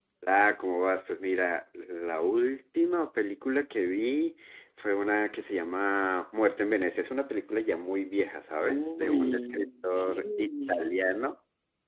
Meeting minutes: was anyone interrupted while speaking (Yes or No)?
Yes